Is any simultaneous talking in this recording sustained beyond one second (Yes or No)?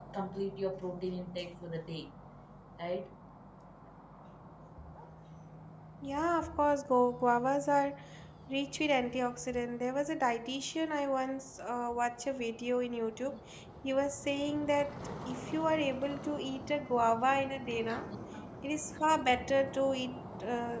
No